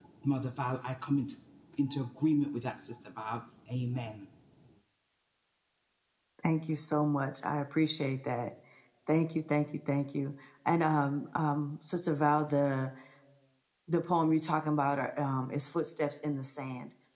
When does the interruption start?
none

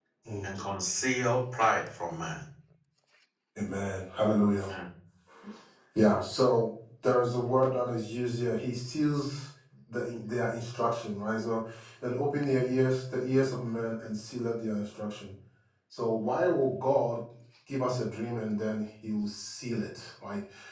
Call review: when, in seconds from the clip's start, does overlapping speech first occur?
none

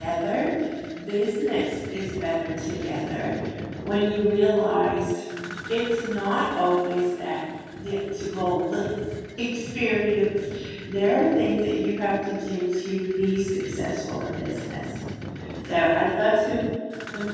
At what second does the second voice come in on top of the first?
none

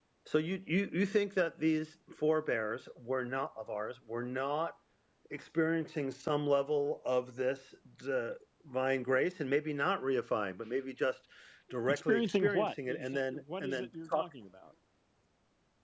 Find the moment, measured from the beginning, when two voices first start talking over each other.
11.9 s

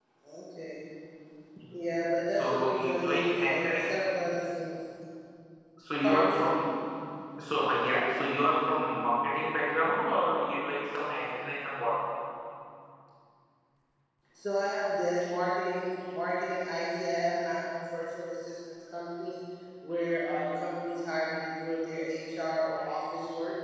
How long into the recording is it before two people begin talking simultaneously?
2.4 s

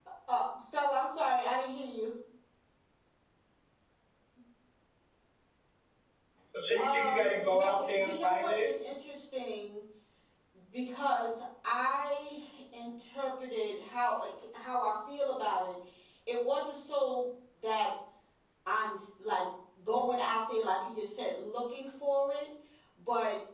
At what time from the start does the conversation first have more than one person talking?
6.8 s

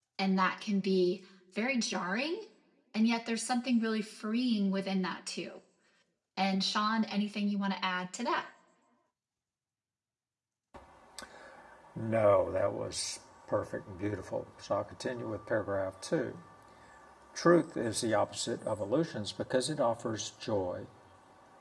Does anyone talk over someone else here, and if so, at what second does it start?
none

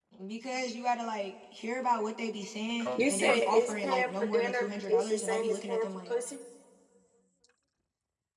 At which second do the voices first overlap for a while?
3.0 s

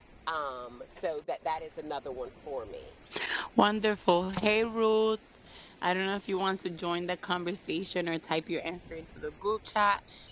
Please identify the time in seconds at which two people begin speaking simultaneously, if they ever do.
none

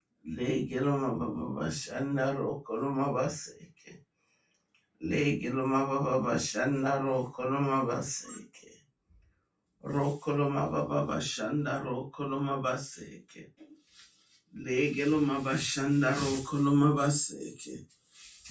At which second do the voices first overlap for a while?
none

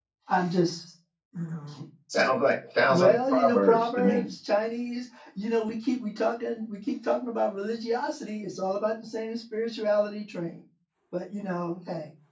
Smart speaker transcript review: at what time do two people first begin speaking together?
2.9 s

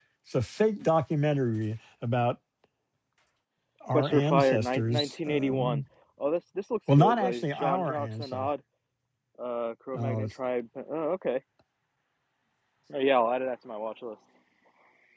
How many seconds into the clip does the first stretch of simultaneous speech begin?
3.9 s

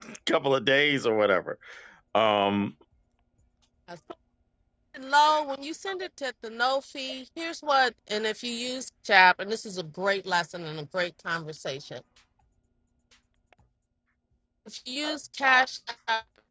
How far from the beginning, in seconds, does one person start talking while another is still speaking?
none

